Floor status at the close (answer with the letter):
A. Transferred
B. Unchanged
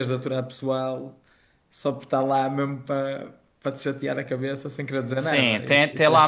A